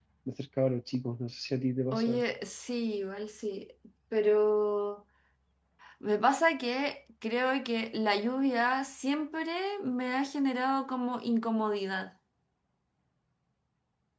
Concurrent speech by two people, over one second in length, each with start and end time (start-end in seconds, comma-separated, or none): none